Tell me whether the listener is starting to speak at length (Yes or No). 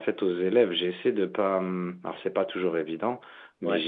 No